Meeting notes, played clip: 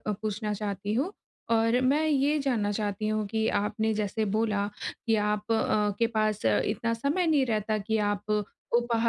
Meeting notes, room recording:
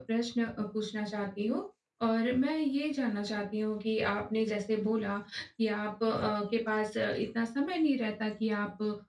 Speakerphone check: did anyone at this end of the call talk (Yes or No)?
No